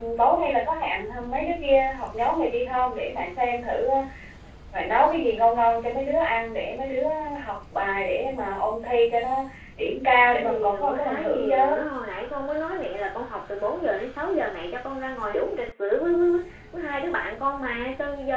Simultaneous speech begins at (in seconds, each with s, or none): 10.3 s